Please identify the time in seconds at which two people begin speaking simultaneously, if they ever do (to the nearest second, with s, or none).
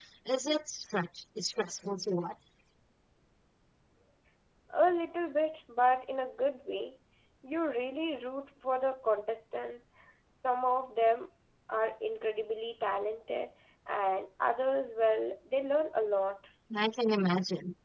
none